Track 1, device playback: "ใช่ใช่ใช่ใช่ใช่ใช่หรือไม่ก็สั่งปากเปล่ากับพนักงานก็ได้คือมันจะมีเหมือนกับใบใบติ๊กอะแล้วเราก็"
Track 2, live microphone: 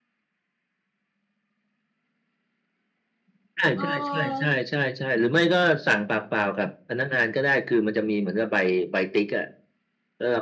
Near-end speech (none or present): present